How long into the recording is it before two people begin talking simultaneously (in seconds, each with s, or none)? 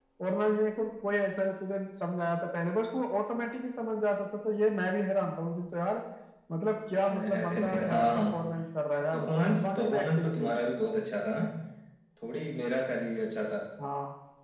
7.0 s